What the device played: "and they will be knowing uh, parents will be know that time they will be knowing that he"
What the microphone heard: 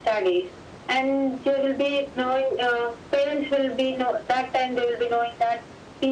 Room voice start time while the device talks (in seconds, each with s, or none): none